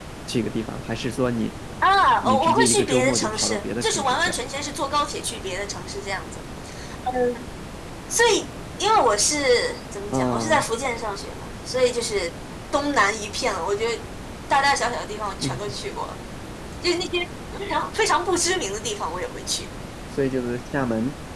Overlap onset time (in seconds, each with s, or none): 2.2 s